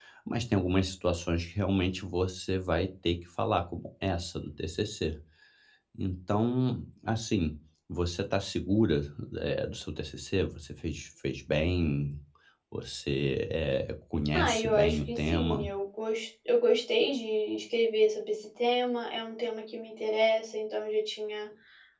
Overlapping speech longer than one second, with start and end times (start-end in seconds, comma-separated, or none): 14.3-15.7